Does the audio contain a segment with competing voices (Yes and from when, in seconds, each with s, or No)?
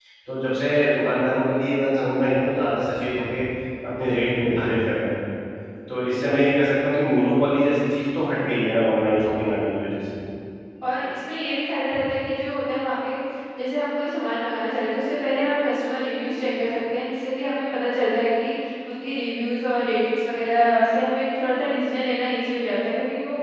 No